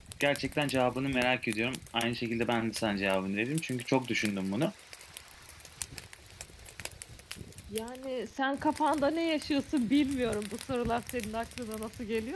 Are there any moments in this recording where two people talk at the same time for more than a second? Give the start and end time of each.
none

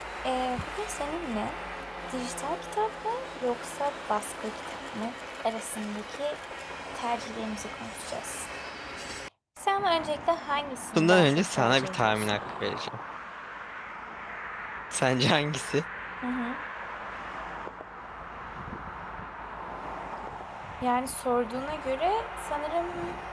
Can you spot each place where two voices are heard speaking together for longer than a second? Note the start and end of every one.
11.0-12.4

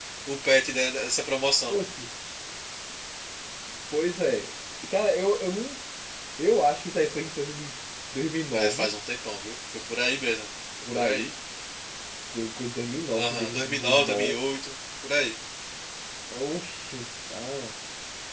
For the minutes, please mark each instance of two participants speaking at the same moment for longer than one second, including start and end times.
13.1-14.4

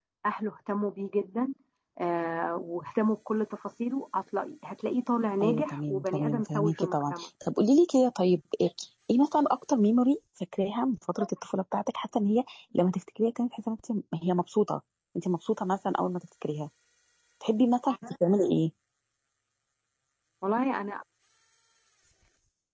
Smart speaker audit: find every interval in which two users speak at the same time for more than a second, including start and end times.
5.4-7.3

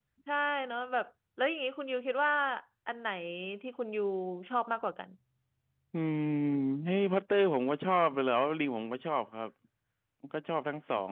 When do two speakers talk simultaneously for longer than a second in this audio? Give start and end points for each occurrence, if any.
none

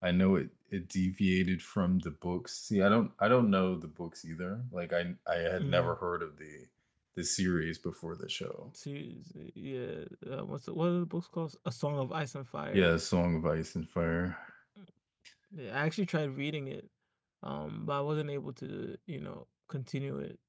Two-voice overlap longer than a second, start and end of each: none

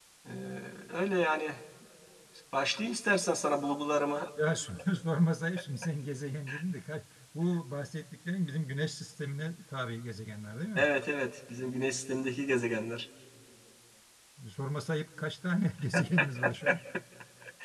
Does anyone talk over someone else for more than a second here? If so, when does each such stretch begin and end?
none

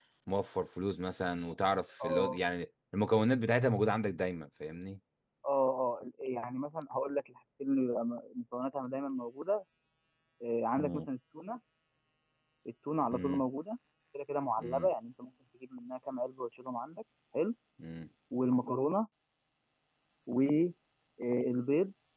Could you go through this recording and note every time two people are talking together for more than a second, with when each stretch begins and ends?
none

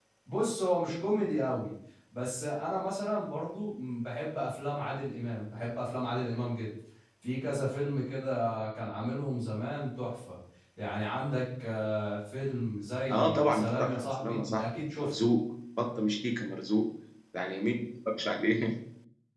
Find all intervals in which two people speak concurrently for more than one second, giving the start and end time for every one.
13.1-15.1

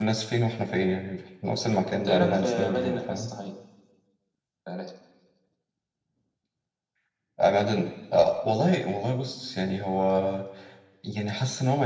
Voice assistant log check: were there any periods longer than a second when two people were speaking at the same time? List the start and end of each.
1.9-3.3

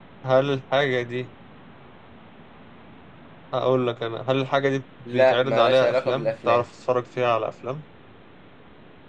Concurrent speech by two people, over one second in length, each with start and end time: 5.1-6.7

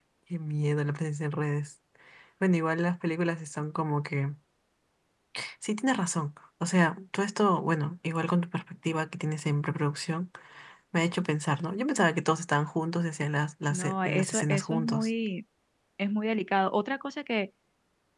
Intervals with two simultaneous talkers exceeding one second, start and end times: 13.7-15.1

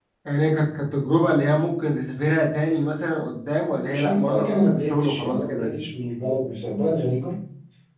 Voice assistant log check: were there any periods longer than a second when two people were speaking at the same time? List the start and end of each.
3.8-5.7

